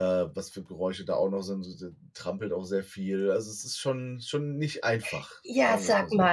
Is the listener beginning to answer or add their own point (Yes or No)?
Yes